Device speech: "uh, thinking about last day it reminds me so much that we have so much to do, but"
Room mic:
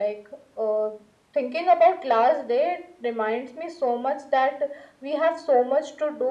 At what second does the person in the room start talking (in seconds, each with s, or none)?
none